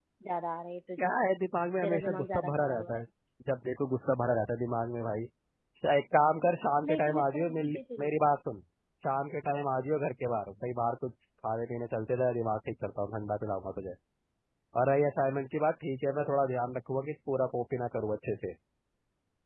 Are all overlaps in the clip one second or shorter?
No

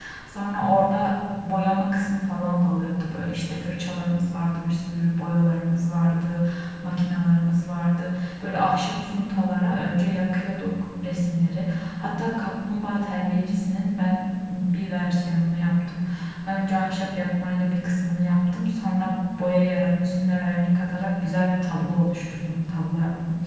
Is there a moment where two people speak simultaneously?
No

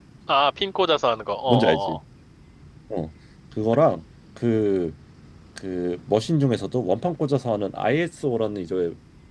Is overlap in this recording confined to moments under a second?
Yes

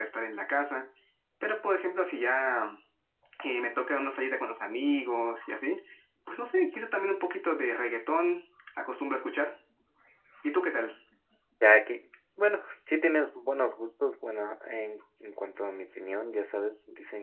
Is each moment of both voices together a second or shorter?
Yes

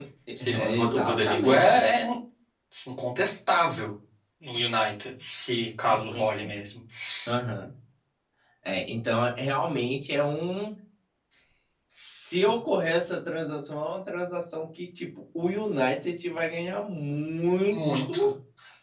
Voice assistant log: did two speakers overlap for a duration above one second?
Yes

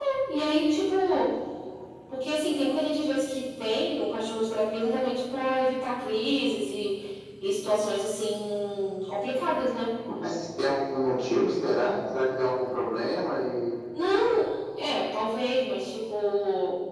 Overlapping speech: No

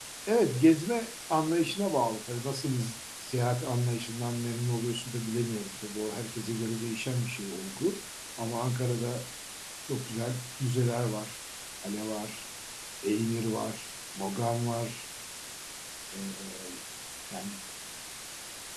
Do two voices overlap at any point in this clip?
No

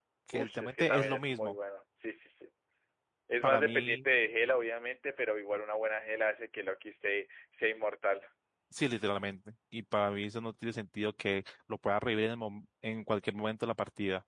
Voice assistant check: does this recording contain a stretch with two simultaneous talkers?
Yes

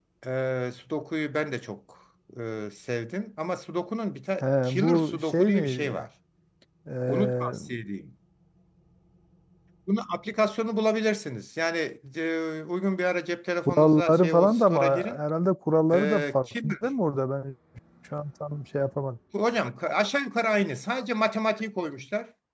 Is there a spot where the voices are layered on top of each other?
Yes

